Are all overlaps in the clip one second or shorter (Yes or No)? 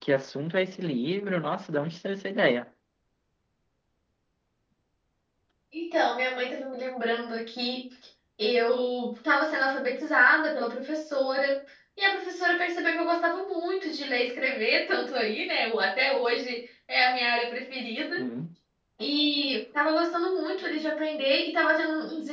Yes